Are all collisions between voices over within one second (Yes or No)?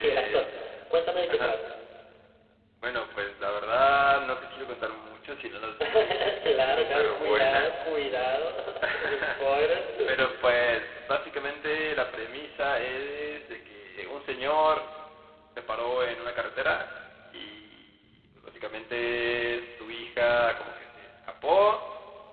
No